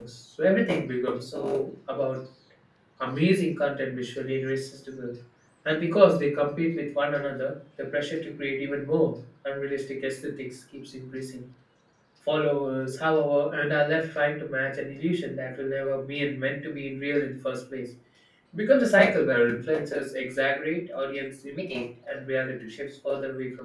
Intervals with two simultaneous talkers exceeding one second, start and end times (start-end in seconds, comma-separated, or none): none